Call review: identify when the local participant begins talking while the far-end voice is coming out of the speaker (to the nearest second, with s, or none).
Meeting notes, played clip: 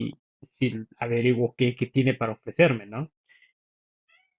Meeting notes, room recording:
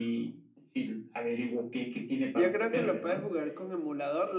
2 s